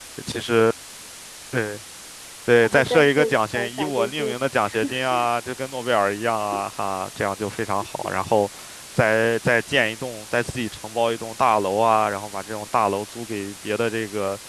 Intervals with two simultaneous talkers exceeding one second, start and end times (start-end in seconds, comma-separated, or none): 2.6-4.3